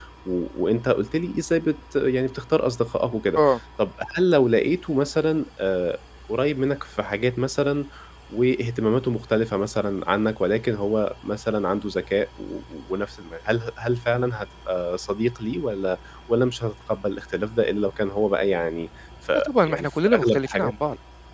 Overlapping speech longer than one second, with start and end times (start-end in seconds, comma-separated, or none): 19.5-20.7